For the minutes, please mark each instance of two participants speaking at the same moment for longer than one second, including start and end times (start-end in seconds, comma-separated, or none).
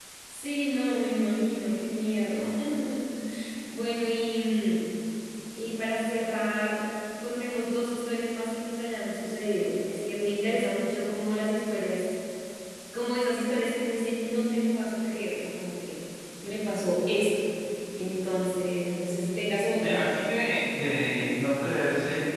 none